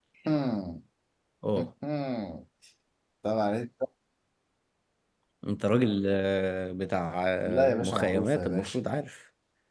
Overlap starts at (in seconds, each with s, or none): 7.5 s